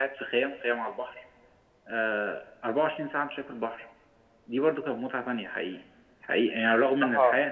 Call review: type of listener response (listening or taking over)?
listening